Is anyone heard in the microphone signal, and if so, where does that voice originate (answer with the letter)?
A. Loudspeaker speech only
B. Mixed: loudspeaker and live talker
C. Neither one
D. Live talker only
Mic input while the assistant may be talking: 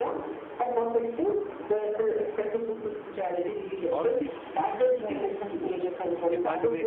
B